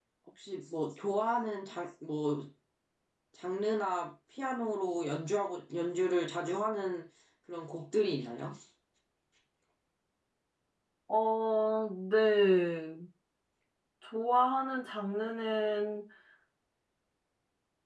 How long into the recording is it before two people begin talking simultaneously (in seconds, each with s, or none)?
none